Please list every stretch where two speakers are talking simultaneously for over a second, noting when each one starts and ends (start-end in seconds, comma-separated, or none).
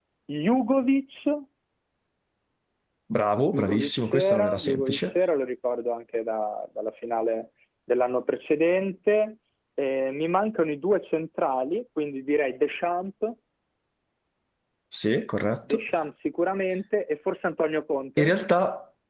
3.5-5.0